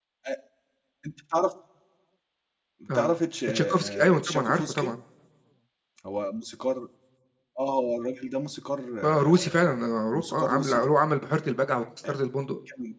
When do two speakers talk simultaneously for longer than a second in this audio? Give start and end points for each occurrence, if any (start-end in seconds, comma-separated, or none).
3.5-4.9, 9.0-10.9